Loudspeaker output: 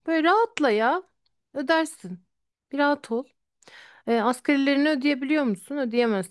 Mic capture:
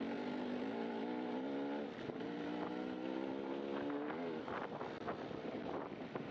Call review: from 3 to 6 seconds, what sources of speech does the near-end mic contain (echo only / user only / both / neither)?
neither